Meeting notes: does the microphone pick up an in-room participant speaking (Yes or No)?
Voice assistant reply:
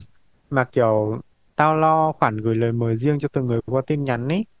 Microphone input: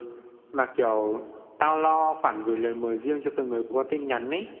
No